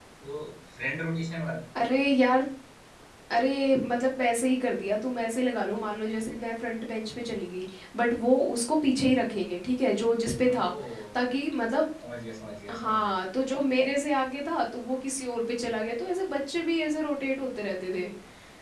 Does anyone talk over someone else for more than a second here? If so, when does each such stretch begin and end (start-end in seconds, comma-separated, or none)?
none